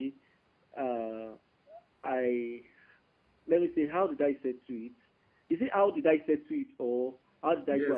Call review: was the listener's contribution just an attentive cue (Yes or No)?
No